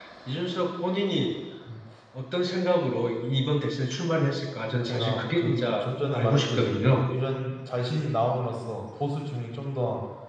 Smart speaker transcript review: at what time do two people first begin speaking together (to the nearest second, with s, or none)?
5 s